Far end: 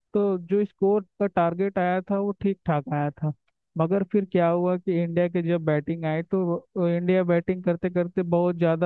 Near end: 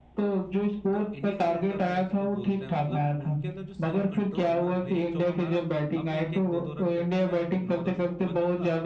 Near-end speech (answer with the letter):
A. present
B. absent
A